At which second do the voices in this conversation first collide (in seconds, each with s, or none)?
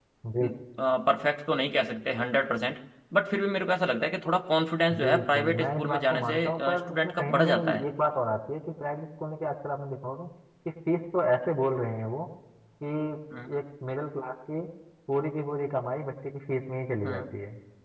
4.9 s